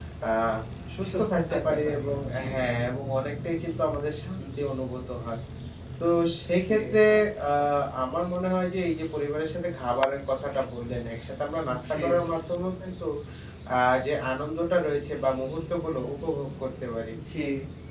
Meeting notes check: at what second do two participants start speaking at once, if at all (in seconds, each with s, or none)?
1.1 s